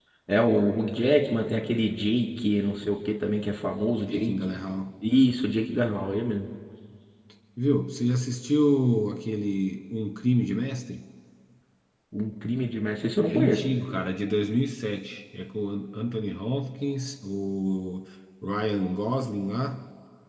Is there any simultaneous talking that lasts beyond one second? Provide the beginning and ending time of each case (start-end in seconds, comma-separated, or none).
none